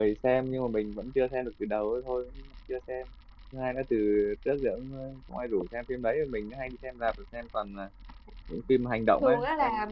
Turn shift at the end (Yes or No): Yes